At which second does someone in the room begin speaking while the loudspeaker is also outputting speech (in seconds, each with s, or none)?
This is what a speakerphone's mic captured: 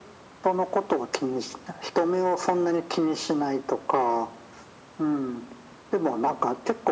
none